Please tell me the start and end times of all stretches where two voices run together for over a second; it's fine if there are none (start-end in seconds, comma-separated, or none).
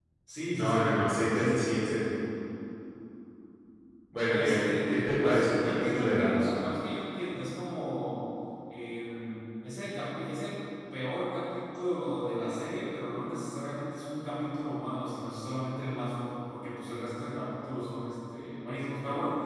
4.3-6.5